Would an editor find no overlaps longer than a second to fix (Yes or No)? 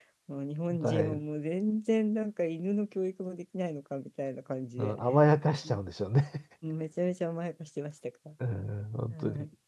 Yes